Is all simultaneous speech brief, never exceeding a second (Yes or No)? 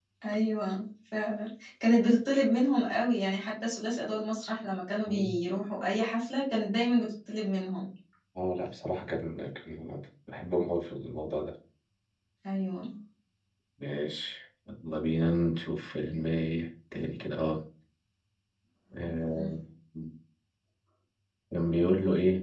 Yes